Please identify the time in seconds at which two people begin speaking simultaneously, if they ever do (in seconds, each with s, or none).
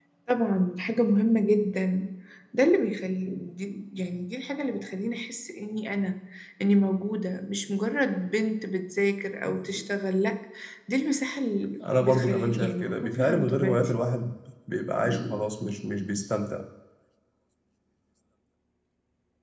11.8 s